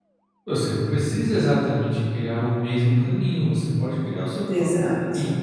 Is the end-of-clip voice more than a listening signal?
No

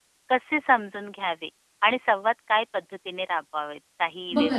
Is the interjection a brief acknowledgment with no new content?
No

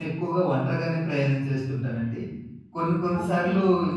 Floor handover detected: No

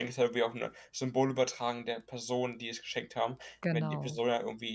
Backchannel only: Yes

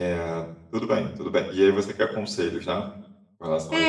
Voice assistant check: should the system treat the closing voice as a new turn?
Yes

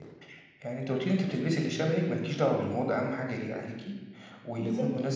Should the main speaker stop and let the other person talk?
No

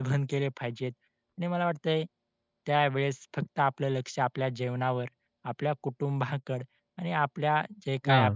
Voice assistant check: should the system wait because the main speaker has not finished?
Yes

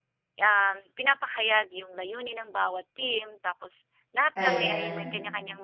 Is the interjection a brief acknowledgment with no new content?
Yes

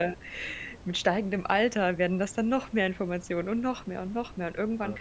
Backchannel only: Yes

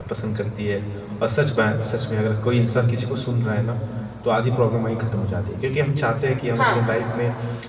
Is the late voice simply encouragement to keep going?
Yes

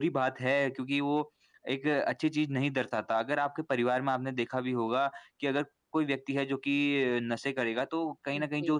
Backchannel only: Yes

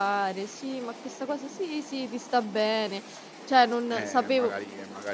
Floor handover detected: Yes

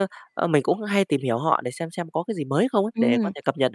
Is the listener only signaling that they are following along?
No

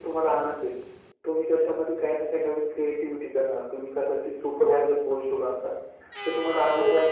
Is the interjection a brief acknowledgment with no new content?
Yes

